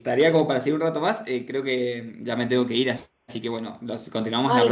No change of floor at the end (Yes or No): No